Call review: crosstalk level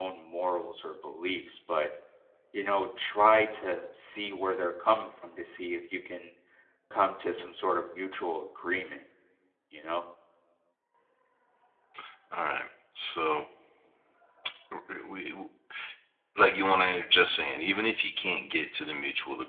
none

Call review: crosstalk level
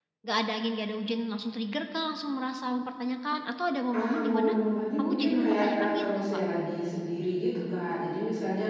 present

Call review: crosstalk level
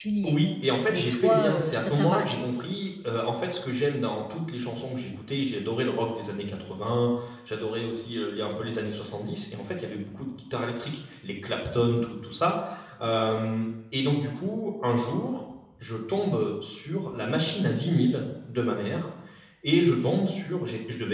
present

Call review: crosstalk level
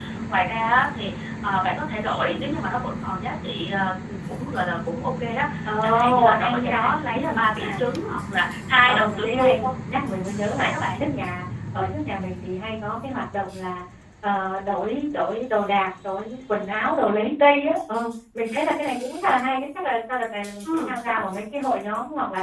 present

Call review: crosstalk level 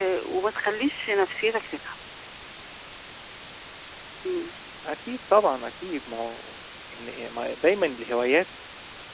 none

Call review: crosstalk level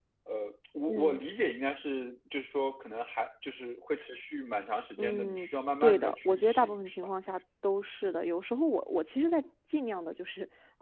present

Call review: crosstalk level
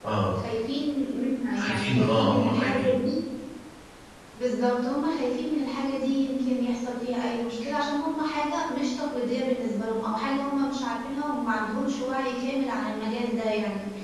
present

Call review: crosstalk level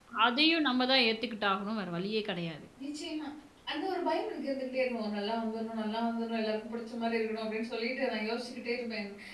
none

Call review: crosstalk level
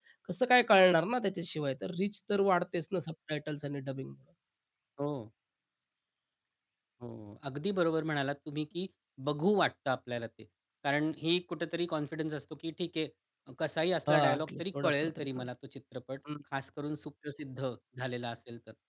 present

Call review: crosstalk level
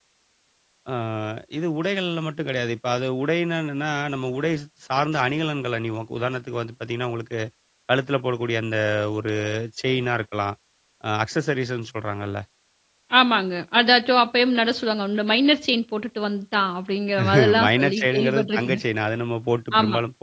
present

